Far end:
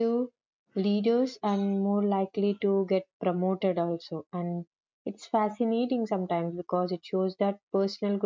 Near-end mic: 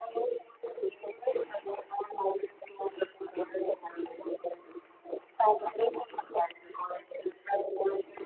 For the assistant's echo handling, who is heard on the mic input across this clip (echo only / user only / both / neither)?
echo only